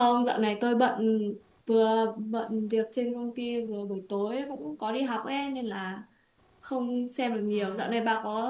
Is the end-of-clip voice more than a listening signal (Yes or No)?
No